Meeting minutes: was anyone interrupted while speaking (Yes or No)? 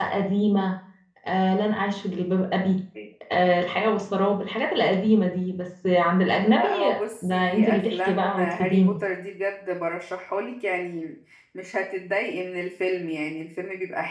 Yes